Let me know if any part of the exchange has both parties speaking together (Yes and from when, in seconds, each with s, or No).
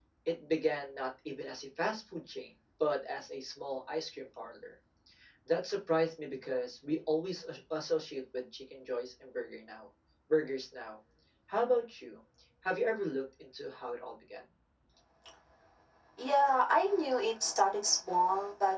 No